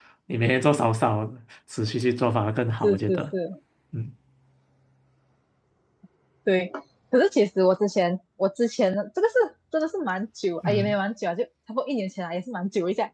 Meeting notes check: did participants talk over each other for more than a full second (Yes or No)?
No